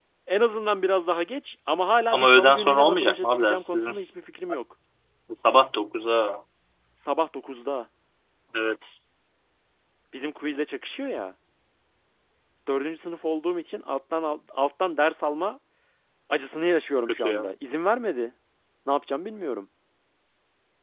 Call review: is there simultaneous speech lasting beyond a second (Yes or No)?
Yes